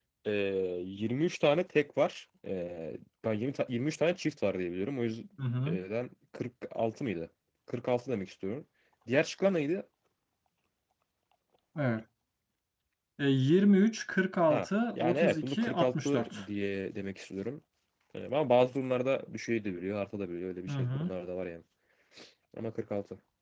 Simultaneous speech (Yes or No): Yes